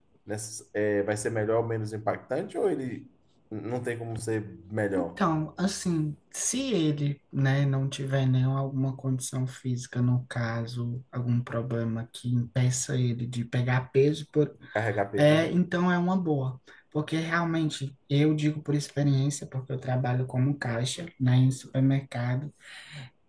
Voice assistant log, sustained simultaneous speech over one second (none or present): none